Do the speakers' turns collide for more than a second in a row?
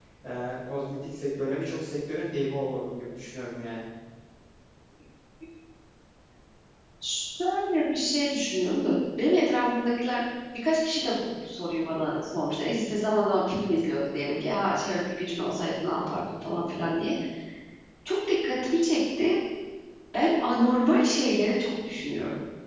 No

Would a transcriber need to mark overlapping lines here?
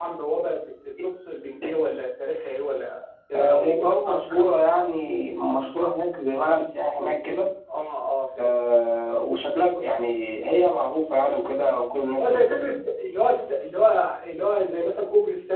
Yes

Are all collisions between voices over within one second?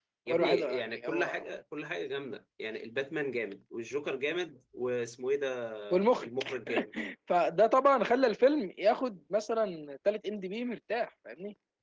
No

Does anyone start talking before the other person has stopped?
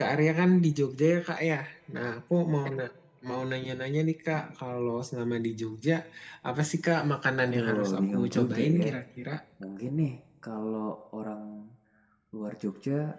Yes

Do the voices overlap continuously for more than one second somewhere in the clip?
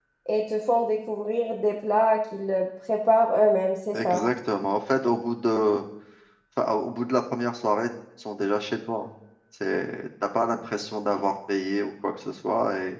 No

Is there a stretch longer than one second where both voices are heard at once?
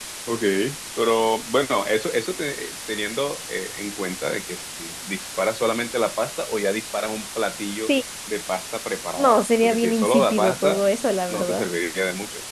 Yes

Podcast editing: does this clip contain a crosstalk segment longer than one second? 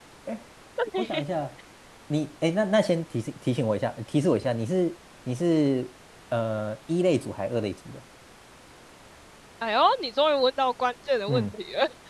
No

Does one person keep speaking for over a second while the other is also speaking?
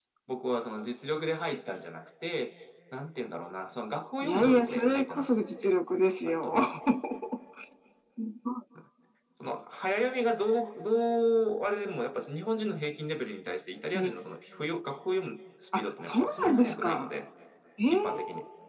Yes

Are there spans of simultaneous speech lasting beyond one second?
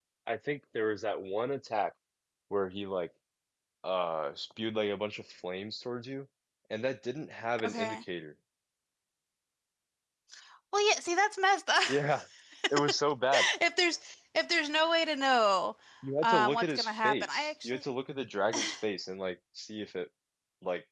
Yes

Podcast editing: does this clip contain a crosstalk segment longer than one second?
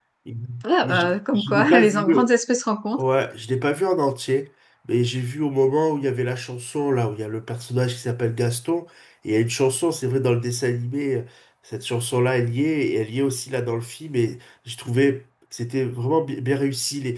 Yes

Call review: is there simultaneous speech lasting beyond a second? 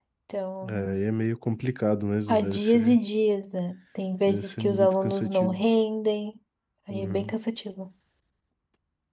Yes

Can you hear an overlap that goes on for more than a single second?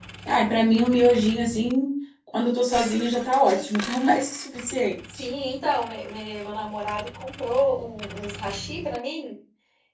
No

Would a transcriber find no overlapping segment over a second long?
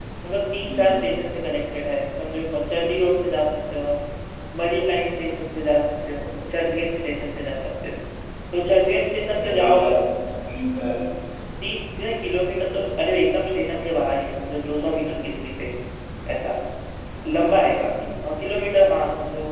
Yes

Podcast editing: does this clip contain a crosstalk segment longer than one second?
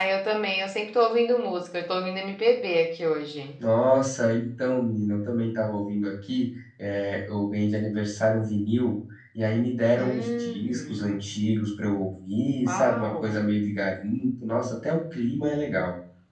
Yes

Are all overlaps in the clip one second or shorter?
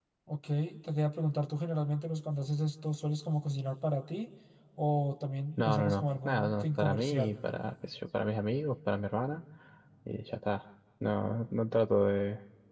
No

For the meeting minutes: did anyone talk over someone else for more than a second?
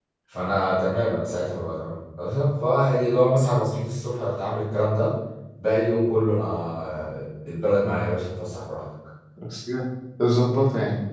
No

